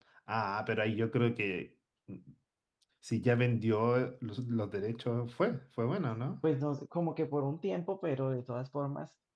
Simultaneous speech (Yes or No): No